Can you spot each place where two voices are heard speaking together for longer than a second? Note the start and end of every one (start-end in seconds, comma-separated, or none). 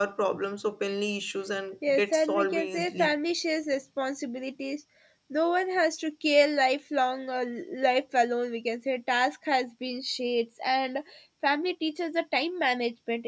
1.9-3.1